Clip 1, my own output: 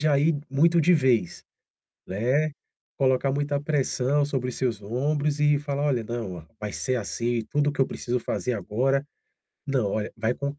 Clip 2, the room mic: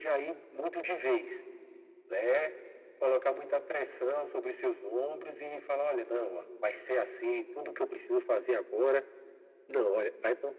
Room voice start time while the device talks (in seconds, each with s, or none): none